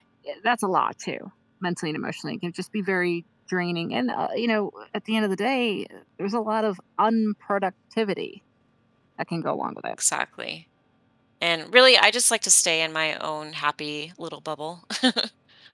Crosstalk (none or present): none